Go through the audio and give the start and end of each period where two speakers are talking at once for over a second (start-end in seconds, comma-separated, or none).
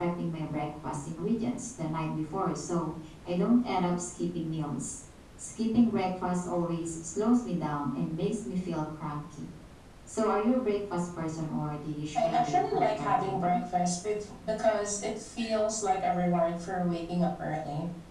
12.2-13.6